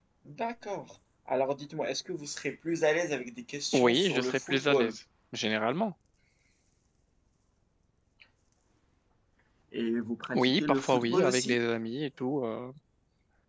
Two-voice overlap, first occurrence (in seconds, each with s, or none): 3.7 s